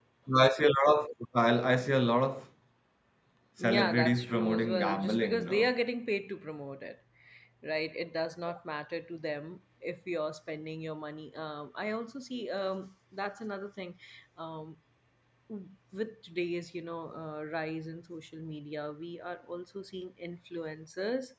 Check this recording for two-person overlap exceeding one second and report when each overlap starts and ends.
3.6-5.7

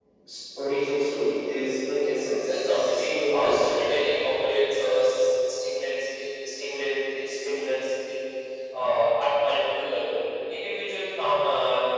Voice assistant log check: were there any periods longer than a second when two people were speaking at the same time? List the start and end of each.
2.2-3.8

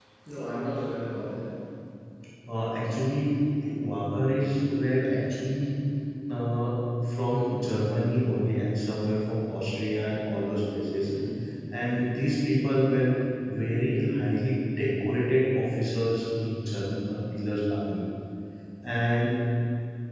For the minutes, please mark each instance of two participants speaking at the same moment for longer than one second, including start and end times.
none

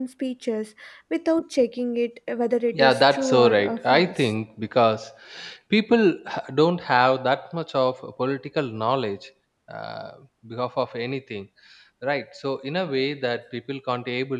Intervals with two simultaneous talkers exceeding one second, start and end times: 2.8-4.3

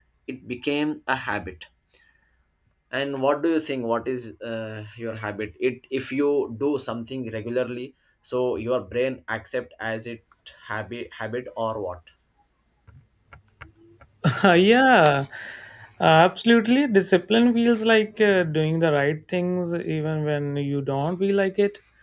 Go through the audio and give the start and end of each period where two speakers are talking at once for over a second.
none

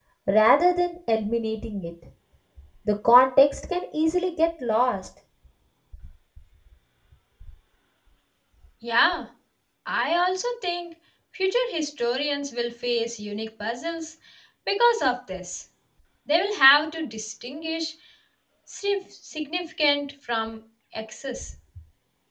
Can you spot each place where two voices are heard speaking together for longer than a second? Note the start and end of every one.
none

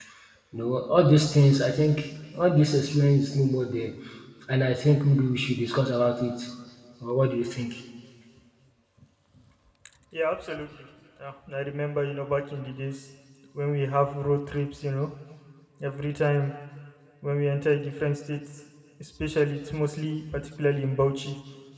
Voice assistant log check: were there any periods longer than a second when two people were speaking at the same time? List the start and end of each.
none

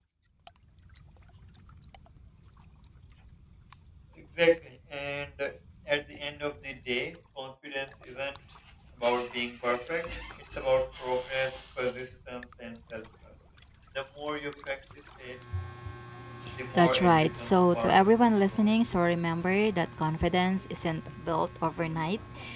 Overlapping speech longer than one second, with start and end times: 16.7-18.7

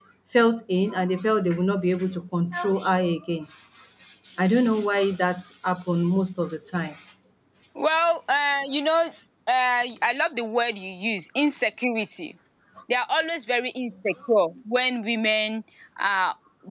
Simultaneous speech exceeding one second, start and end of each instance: none

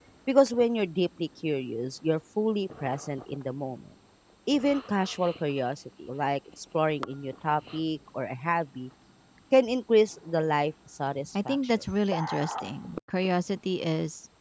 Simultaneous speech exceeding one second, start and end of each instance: none

